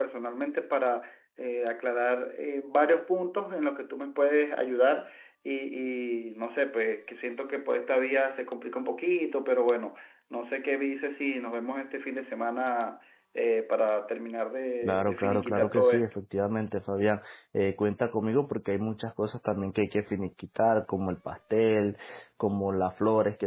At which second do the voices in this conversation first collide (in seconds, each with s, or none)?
14.8 s